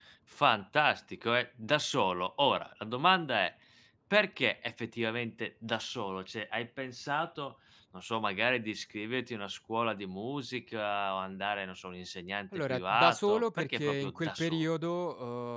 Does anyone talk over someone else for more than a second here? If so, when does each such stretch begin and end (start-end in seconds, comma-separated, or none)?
12.7-14.7